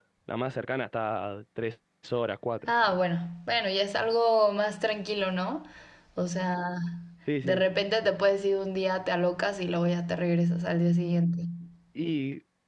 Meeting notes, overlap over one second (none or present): none